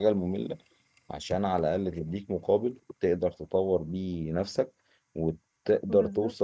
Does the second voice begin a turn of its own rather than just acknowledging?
No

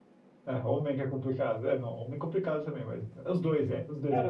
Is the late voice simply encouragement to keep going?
No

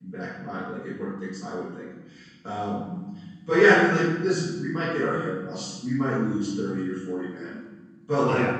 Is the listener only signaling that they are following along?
Yes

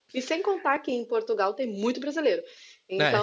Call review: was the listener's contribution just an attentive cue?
Yes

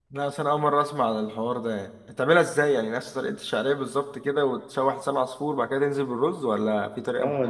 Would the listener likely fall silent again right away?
No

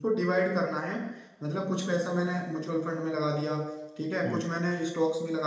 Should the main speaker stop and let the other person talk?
No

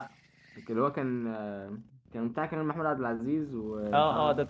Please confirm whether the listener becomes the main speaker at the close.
Yes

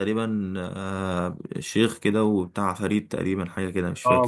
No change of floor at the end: No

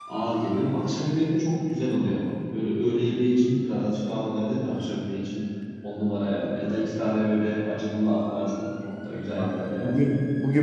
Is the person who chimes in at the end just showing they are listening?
No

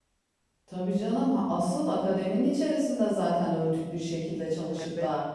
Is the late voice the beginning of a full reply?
No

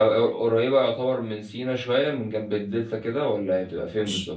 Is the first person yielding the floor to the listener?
Yes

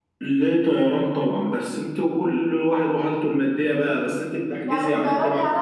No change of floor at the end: No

